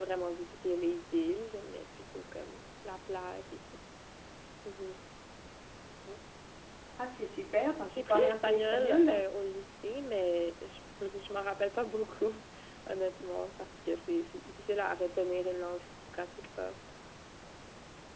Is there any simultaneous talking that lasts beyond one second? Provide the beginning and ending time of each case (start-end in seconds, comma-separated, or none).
7.9-9.3